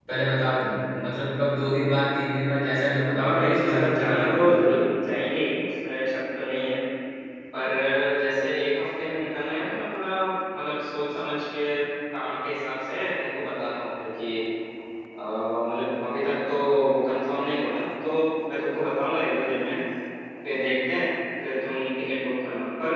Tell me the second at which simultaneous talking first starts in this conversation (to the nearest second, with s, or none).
3 s